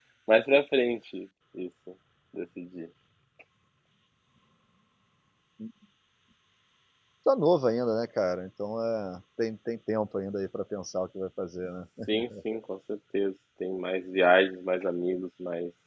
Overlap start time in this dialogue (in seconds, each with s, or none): none